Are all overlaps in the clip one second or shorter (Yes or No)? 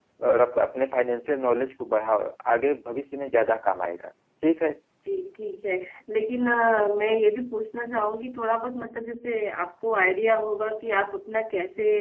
Yes